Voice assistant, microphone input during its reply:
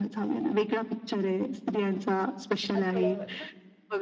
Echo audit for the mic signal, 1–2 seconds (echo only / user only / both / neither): echo only